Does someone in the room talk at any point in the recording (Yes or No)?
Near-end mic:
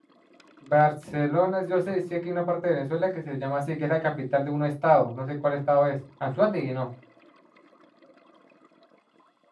Yes